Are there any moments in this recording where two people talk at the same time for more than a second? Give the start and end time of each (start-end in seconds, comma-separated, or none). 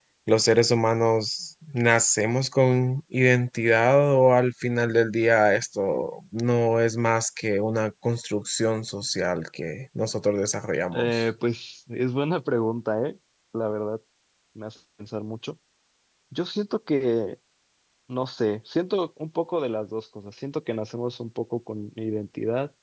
none